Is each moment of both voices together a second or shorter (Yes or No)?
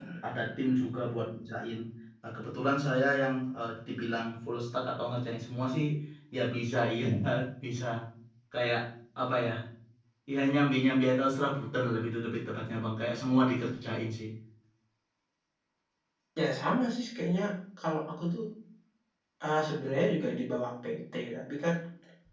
Yes